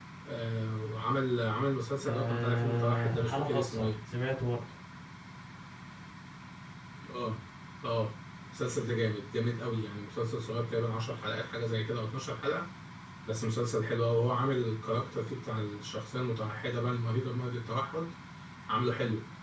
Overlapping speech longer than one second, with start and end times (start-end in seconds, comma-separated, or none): 2.0-3.9